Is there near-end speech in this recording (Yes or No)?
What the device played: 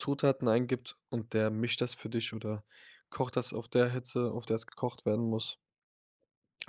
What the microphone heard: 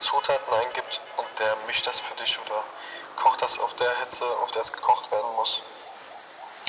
No